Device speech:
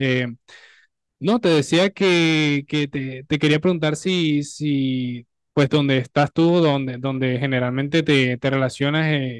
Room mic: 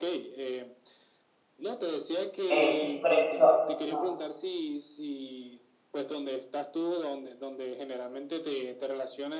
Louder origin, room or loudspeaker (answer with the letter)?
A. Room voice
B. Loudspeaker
A